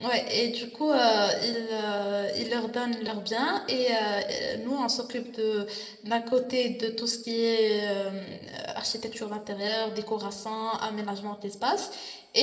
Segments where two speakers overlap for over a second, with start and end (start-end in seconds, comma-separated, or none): none